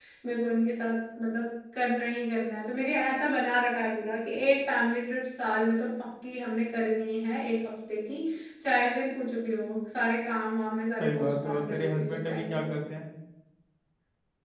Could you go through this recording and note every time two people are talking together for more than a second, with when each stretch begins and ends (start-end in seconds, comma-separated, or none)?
11.0-12.6